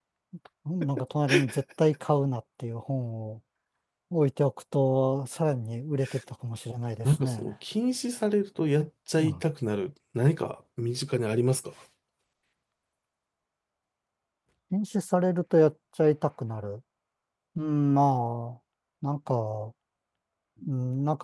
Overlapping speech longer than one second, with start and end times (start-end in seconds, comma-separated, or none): none